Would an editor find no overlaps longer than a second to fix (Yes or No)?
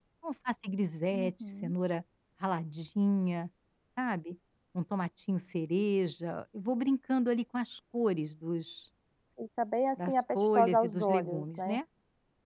No